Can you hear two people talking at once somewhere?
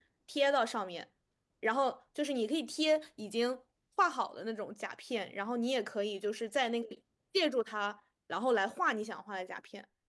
No

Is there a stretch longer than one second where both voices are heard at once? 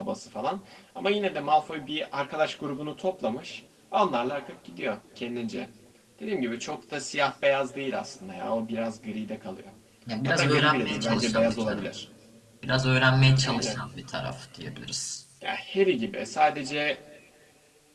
Yes, from 10.3 s

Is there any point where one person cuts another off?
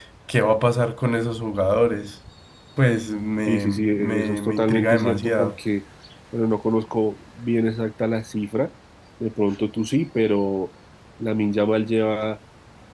Yes, from 3.5 s

